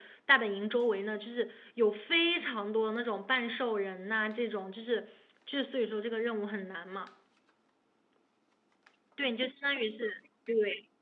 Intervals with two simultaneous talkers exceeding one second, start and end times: none

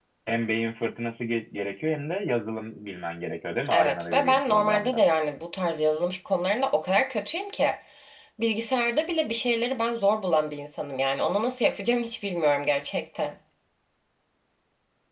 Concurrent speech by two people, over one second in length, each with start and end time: 3.7-5.0

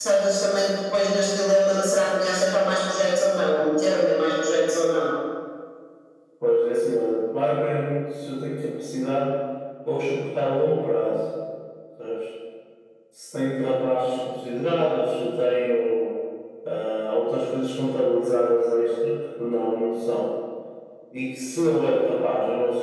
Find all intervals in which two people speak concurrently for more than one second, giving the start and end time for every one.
none

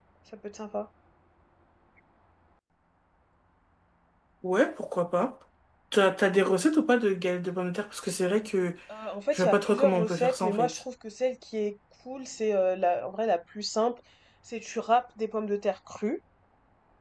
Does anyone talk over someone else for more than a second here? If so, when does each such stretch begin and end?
9.3-10.7

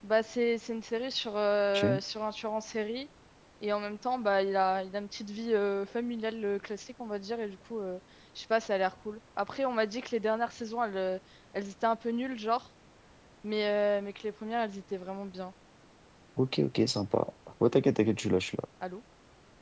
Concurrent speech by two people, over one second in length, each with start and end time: none

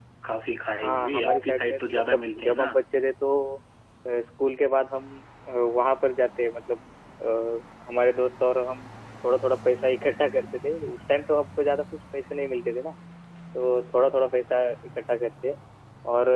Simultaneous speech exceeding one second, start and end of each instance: 0.8-2.7

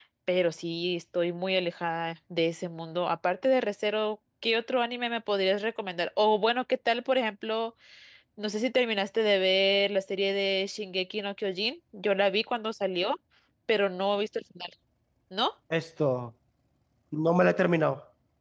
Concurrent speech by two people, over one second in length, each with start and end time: none

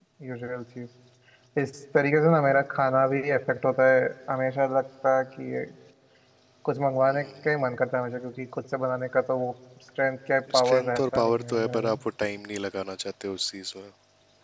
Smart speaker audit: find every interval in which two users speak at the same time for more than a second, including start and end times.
10.5-12.0

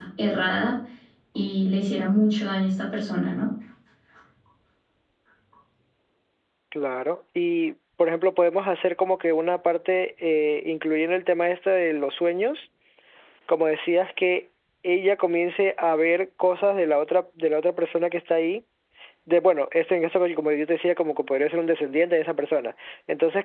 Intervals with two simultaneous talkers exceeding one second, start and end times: none

